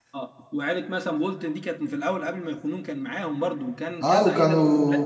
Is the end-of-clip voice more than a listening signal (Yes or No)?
Yes